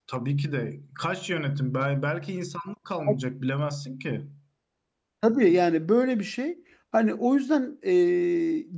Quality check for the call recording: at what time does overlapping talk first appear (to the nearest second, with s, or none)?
none